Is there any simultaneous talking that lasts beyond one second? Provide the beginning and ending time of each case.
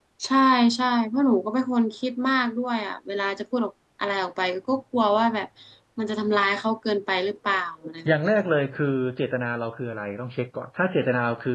none

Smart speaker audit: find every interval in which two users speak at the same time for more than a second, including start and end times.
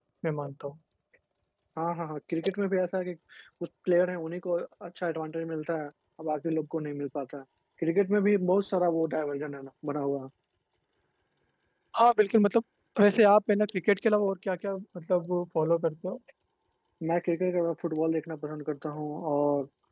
none

